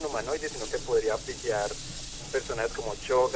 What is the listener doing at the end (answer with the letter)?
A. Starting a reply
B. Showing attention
B